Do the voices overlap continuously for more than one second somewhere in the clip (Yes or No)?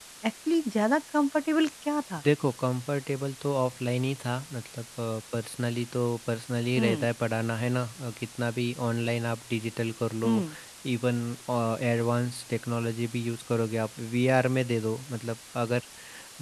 No